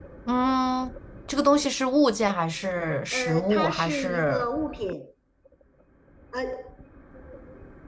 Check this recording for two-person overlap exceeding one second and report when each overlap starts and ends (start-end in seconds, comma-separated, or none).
3.1-4.5